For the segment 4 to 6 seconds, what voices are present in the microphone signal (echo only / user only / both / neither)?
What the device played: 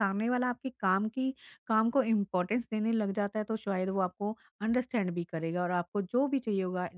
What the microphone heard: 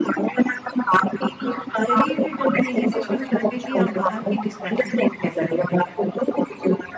both